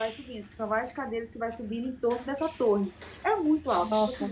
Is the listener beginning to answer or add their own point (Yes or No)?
No